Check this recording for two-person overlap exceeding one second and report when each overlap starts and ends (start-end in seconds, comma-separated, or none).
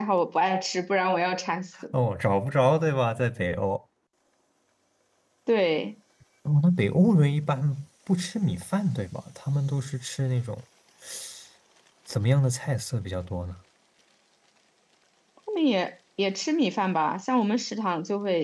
none